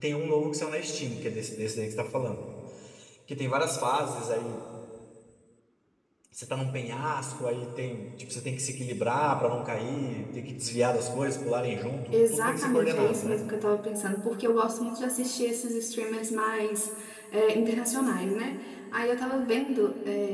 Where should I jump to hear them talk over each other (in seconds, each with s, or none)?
12.1 s